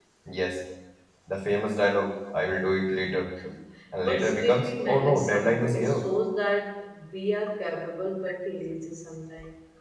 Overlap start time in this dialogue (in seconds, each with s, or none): 4.0 s